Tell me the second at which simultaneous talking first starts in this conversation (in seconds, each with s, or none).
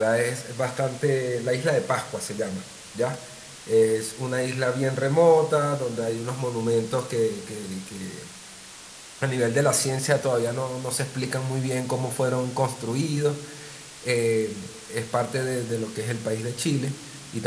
none